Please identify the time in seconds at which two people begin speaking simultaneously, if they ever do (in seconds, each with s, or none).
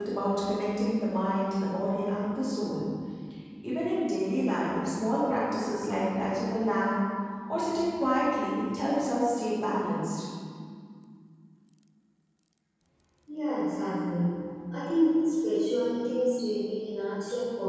none